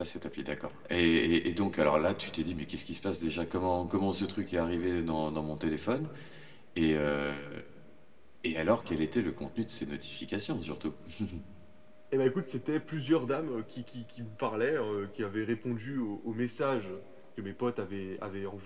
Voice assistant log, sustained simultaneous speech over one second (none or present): none